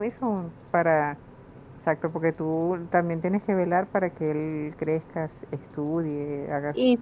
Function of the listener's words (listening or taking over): taking over